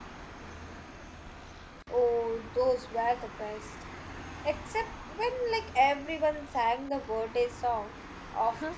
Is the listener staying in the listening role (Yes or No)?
No